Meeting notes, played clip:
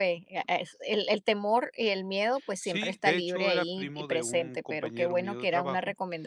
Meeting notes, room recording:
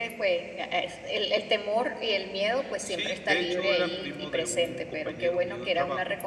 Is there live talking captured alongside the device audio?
No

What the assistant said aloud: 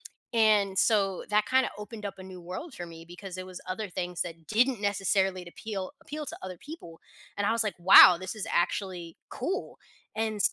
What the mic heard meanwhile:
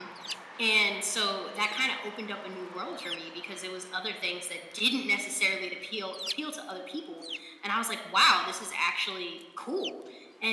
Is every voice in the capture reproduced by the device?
Yes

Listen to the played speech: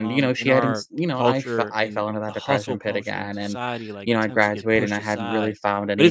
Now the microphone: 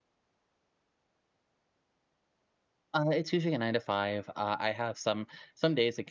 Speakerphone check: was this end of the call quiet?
No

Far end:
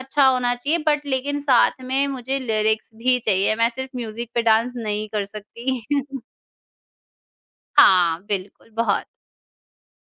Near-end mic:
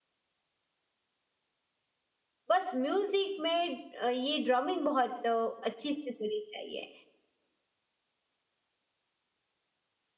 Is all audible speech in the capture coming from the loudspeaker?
No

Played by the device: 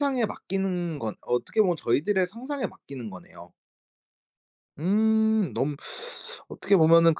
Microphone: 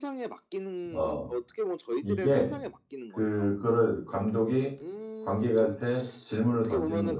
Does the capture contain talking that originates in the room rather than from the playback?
Yes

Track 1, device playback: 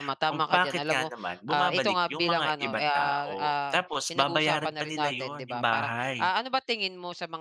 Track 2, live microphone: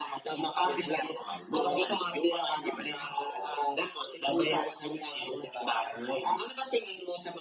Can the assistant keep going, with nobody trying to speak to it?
Yes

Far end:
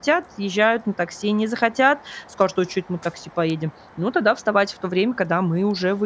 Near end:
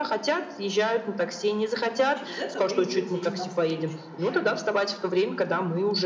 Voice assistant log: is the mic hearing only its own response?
No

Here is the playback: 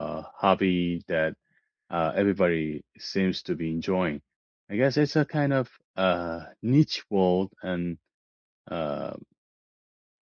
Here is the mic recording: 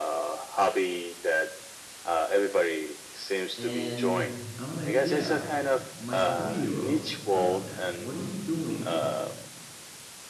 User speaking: Yes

